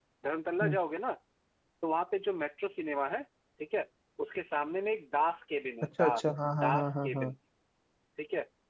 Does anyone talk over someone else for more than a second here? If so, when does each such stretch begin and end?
6.0-7.3

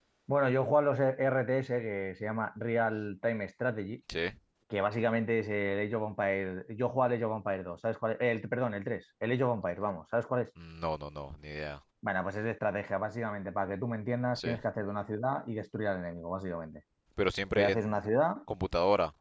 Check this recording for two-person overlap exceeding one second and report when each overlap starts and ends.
none

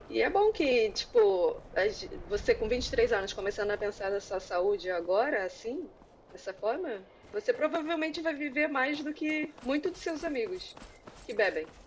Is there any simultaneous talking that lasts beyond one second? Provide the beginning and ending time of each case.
none

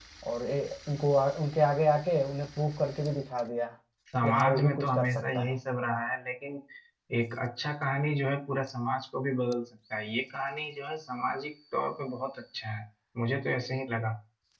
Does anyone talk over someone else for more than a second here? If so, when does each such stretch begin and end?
4.2-5.5

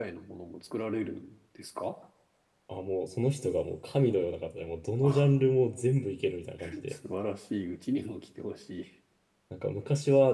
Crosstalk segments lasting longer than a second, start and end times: none

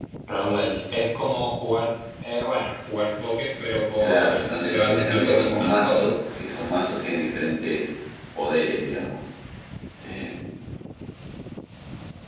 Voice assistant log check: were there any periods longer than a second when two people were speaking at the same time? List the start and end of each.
4.0-6.1

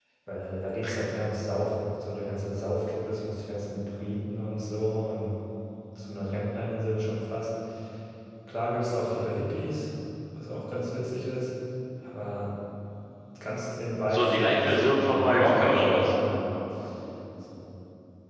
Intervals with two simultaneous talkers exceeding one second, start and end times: 14.1-16.1

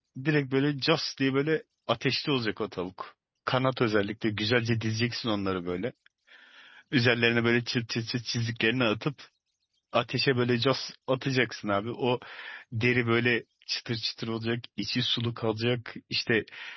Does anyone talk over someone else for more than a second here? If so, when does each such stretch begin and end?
none

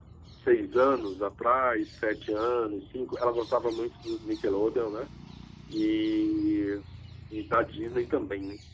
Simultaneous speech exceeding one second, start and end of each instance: none

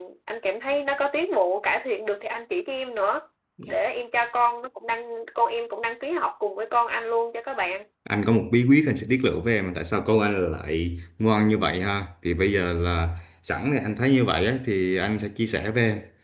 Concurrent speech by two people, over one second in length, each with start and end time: none

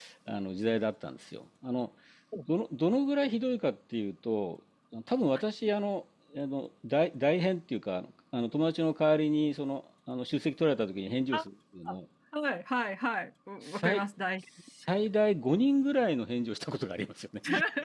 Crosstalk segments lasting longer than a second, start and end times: none

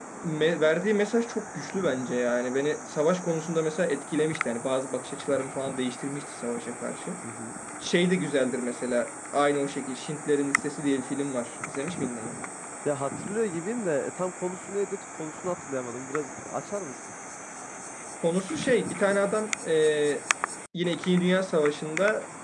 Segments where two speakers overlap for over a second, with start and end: none

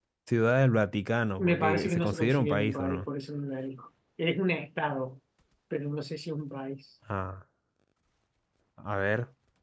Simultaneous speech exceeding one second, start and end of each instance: 1.4-3.0

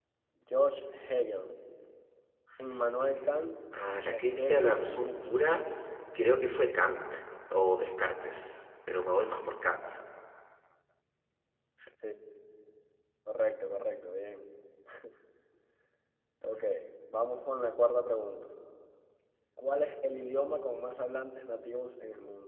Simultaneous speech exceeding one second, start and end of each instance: 4.1-5.4

